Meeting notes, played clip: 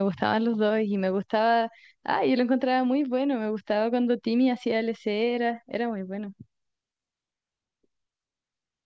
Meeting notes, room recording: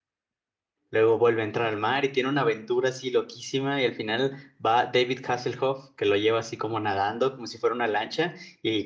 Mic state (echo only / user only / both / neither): user only